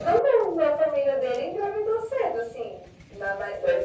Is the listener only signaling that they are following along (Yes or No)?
Yes